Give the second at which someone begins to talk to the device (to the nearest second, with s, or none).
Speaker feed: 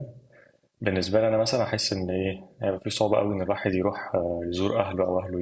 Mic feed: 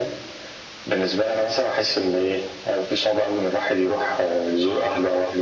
none